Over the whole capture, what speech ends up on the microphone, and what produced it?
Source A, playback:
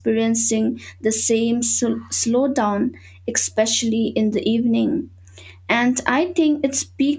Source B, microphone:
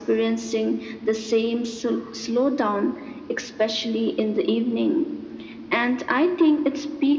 echo only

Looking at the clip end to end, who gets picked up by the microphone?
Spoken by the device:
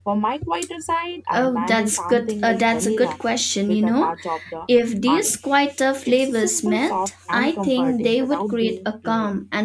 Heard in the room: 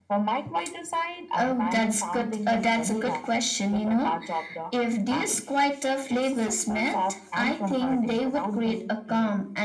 echo only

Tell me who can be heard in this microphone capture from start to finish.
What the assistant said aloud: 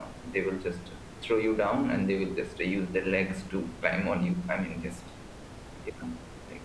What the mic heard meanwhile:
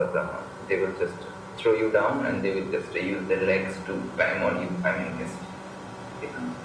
echo only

